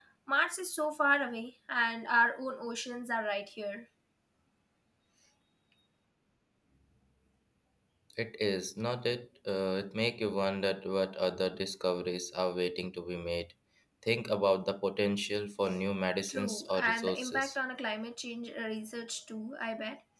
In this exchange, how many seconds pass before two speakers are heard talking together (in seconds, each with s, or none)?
16.3 s